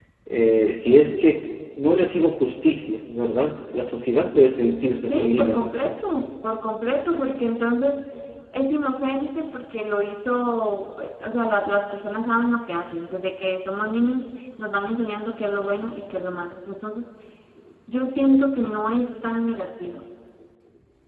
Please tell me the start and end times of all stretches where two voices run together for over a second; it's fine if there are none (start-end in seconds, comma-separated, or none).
none